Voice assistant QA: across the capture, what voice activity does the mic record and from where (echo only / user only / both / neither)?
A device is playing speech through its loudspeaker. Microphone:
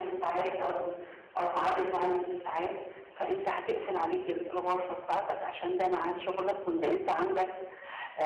echo only